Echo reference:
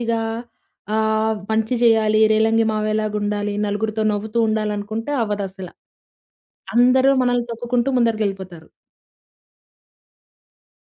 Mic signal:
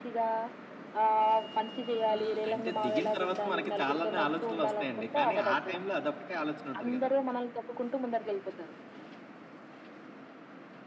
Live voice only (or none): ఆ! అంటే దిగిన తర్వాత మనకి చాలానే ఆలోచనలొస్తాయండి. కానీ ఆ టైంలో అదొక్కటే ఆలోచన ఉంటది గదా!